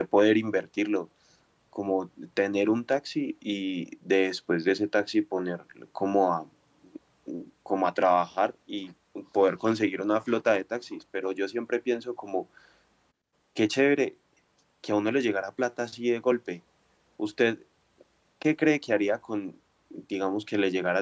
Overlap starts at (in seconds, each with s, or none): none